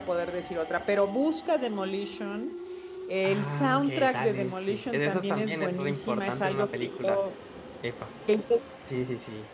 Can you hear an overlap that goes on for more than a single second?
Yes, from 3.2 s

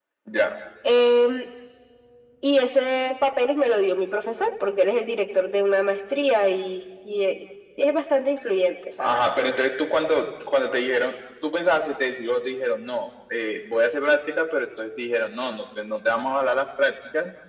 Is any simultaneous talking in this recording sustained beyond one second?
No

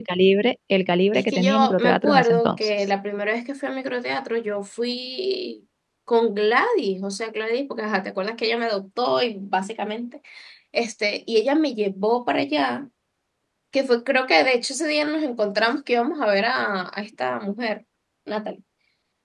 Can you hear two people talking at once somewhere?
Yes, from 1.1 s

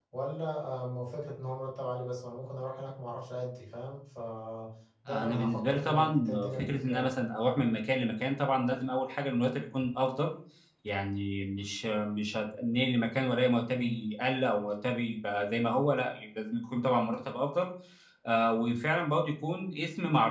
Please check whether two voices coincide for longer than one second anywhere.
Yes, from 5.1 s

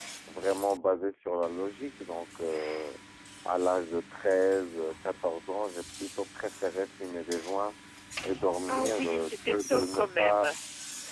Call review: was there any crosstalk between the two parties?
Yes, from 8.7 s

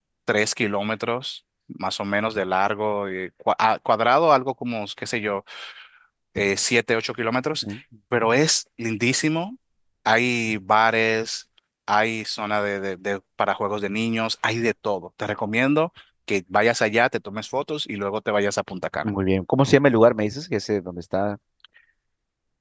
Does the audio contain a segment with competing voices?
No

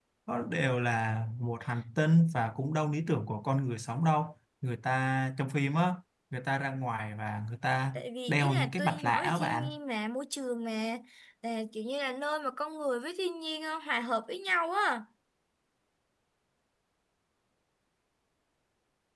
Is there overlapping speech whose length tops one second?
Yes, from 8.0 s

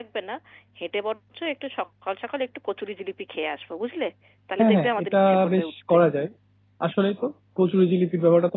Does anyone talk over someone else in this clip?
Yes, from 4.6 s

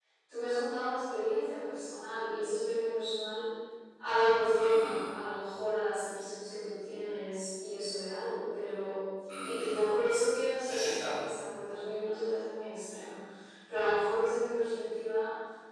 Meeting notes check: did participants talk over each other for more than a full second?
No

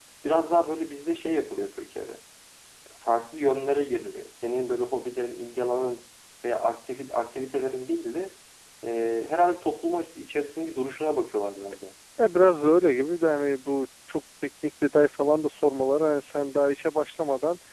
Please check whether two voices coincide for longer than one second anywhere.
No

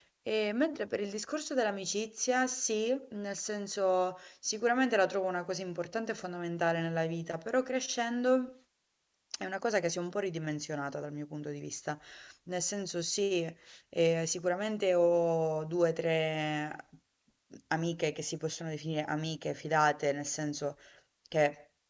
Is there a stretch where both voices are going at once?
No

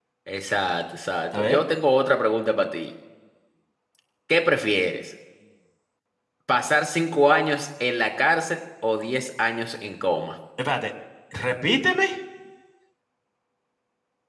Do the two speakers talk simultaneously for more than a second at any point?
No

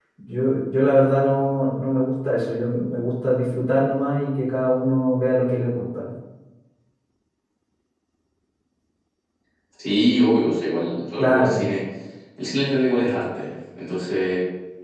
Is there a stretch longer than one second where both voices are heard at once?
No

